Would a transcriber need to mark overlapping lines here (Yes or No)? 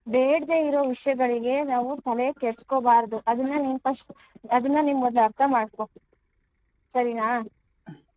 No